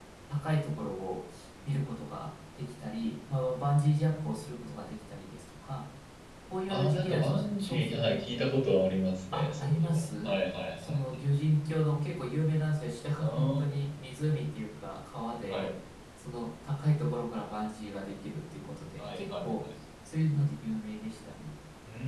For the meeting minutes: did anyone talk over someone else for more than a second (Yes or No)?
Yes